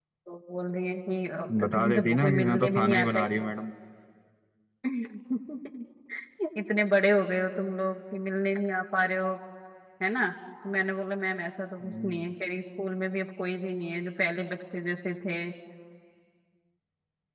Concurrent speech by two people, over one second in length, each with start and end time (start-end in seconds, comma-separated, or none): 1.6-3.2